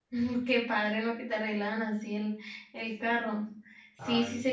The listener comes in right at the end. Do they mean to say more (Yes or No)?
No